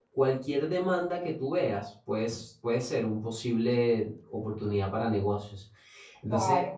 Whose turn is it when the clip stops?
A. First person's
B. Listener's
A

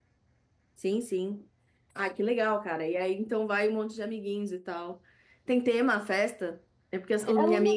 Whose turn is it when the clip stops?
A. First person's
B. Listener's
A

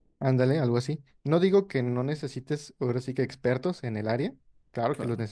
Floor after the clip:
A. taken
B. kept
B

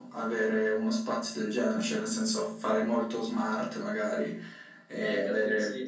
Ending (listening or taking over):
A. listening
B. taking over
B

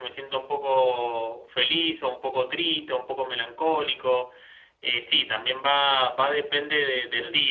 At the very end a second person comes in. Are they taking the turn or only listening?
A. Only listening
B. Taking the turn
A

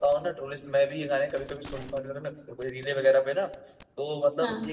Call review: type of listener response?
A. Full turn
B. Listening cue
B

